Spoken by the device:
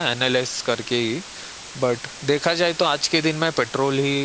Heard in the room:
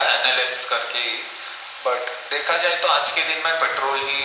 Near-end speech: none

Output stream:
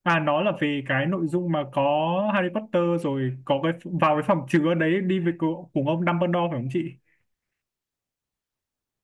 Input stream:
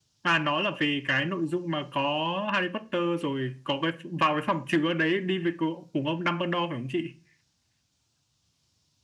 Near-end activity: none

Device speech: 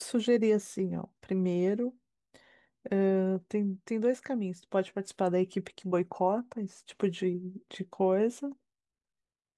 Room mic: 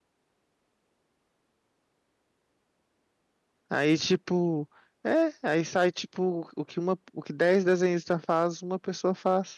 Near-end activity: present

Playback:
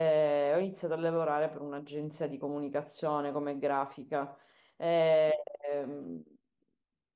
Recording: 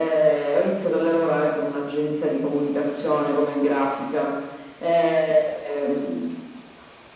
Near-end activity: none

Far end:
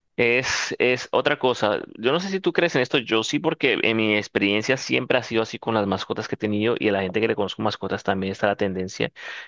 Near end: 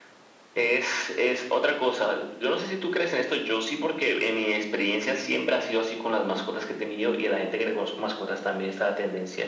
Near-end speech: none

